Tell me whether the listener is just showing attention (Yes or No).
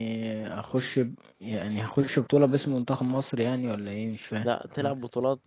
No